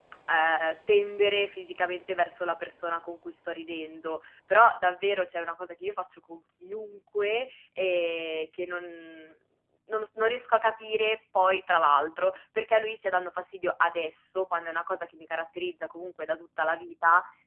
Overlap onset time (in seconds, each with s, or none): none